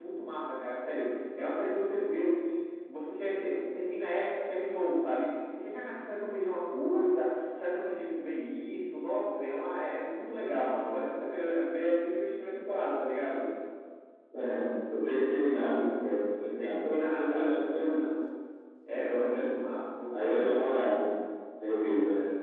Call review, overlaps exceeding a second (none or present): present